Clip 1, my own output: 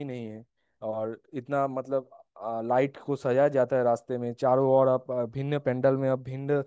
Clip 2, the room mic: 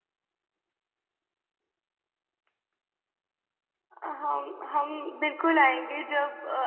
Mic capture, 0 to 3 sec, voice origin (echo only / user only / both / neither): neither